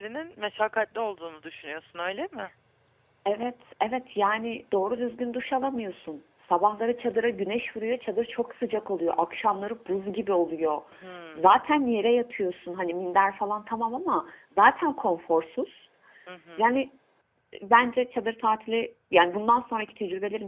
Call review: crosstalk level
none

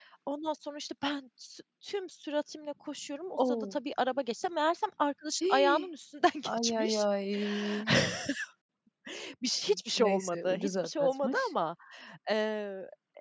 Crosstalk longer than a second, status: present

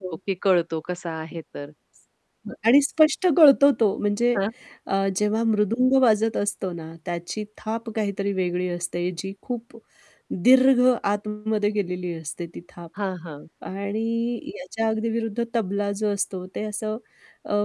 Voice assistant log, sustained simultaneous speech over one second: none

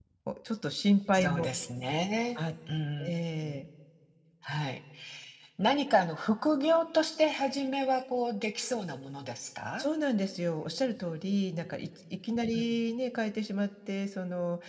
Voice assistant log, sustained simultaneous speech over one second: none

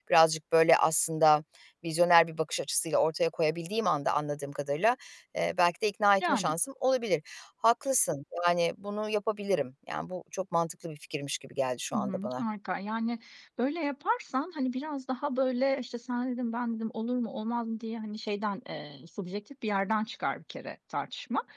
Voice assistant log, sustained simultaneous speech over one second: none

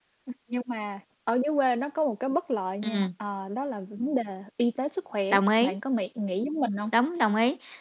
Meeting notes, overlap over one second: none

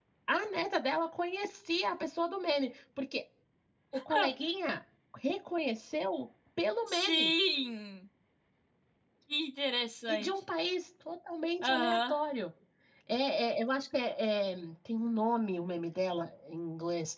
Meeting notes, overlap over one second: none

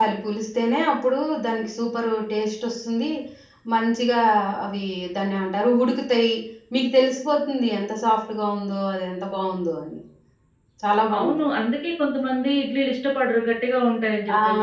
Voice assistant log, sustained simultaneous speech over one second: none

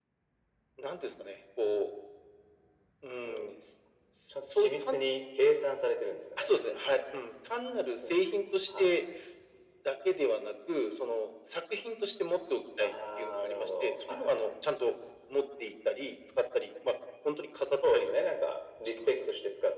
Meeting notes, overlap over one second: present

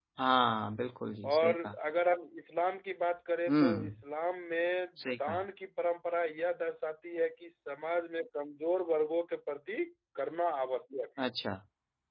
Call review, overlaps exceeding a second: none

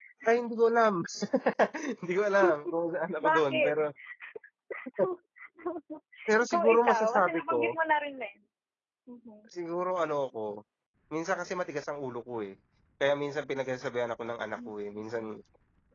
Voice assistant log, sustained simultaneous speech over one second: present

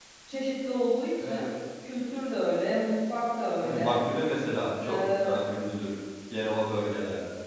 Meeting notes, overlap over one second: none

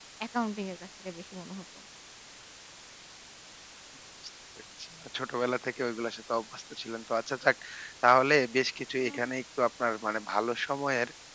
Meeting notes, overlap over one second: none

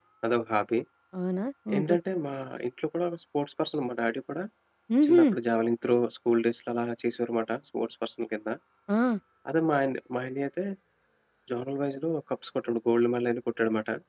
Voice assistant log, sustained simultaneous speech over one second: none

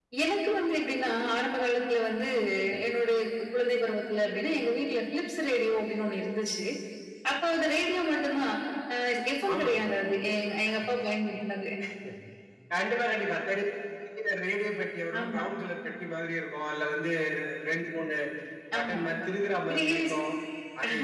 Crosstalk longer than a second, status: none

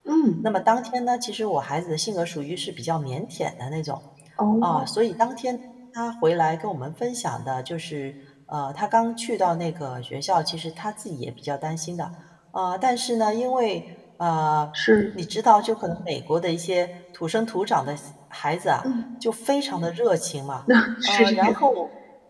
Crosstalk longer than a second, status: none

